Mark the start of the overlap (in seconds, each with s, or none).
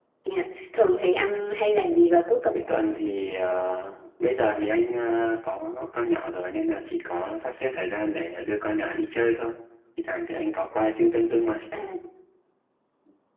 none